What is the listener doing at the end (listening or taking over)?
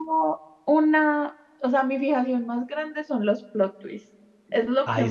listening